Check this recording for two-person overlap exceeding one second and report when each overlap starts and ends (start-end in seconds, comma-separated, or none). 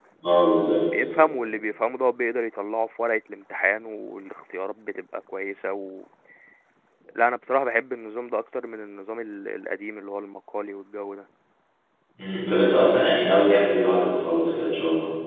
none